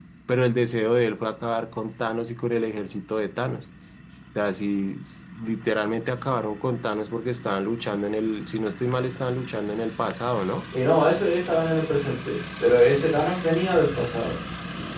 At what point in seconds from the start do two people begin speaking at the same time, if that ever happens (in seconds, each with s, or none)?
none